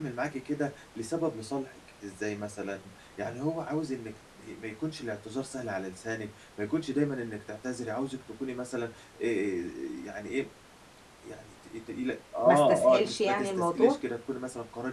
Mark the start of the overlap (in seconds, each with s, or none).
12.4 s